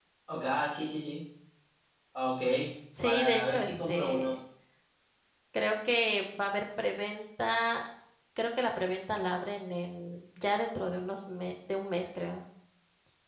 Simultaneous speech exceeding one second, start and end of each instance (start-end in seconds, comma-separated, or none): 3.0-4.3